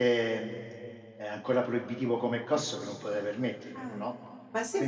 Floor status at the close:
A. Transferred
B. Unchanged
A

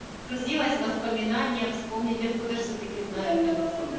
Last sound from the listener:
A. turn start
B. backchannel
A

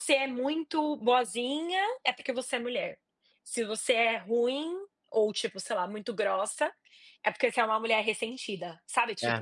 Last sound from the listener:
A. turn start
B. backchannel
A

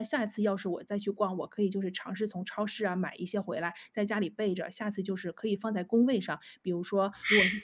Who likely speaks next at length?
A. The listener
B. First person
B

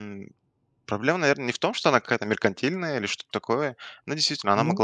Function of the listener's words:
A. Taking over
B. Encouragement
B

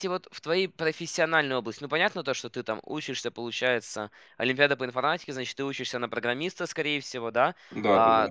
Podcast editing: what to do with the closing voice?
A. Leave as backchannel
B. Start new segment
A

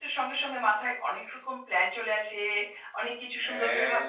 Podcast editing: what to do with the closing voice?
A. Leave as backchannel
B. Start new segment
A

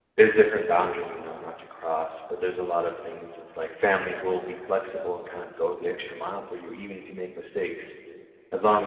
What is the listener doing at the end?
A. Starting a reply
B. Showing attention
B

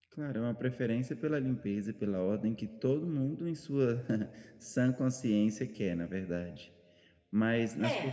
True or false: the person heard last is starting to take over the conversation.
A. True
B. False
B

